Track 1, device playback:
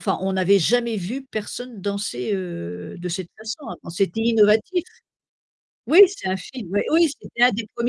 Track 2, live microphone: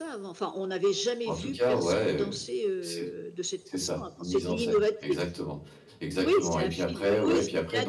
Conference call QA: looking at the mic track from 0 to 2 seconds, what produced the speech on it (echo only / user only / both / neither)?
both